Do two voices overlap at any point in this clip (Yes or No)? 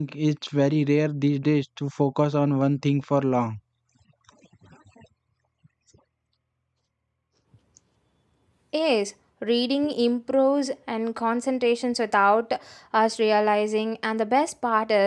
No